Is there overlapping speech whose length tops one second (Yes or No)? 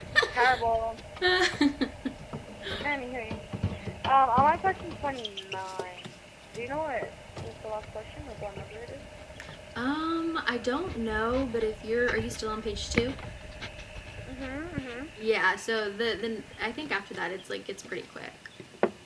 No